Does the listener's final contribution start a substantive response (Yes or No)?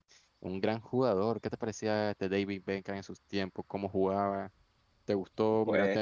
No